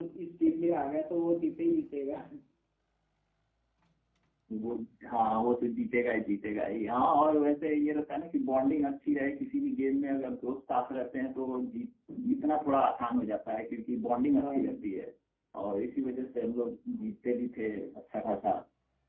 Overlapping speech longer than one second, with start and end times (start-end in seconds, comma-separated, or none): none